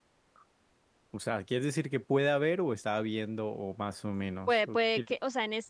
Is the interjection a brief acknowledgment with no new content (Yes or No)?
No